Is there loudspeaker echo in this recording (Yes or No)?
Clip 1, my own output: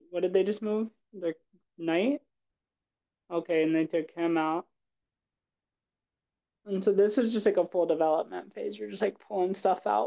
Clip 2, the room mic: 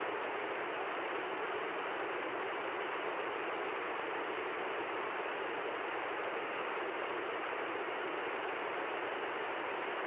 No